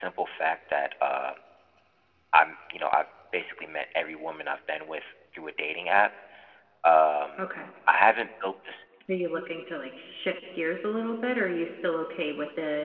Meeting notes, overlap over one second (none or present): none